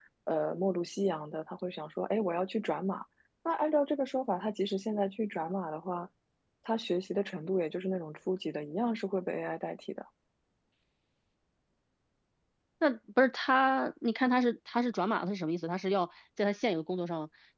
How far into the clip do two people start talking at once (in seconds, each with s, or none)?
none